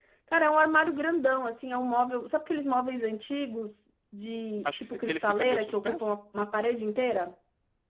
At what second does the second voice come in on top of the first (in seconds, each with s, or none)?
4.7 s